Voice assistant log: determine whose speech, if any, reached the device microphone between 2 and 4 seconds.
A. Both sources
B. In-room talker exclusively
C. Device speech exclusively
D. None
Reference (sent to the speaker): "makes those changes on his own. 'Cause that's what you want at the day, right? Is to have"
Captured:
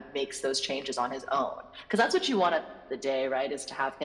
C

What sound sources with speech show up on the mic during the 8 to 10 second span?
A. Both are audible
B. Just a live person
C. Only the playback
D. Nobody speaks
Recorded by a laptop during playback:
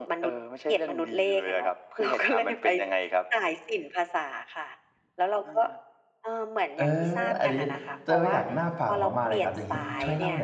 A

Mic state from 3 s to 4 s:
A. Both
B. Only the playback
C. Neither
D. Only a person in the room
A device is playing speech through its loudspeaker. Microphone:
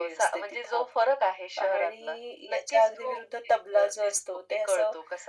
B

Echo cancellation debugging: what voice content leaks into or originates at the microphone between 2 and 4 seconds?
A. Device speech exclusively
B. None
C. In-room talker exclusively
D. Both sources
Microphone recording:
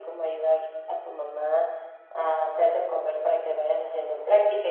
A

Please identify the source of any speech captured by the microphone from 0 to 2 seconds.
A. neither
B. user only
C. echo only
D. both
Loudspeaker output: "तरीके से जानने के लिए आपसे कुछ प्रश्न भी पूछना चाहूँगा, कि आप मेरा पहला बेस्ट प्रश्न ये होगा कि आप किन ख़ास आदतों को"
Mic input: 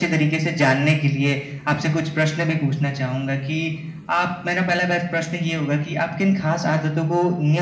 C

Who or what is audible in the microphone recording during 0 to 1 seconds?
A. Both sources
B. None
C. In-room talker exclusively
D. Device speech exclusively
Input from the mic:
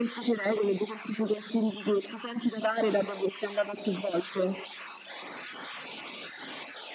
D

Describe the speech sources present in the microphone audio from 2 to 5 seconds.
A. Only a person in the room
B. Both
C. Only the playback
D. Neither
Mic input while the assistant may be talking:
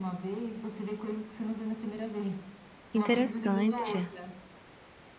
B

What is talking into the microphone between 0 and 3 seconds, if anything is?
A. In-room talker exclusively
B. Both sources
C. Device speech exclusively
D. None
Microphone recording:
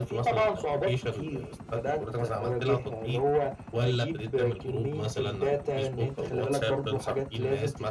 C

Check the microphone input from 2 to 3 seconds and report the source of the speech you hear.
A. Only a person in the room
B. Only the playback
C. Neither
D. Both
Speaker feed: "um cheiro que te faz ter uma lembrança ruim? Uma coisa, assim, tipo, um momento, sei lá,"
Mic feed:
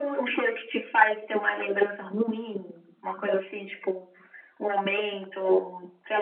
B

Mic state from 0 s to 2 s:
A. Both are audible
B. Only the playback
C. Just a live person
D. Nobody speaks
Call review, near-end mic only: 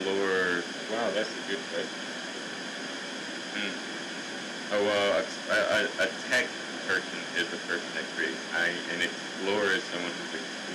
B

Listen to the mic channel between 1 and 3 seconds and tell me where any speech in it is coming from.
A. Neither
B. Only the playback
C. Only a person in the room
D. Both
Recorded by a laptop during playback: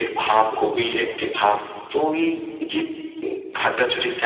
B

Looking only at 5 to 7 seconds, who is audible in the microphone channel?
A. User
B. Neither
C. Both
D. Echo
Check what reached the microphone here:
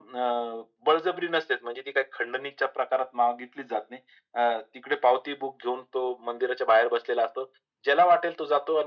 D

